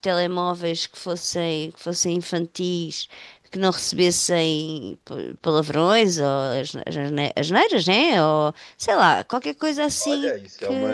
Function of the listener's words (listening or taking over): taking over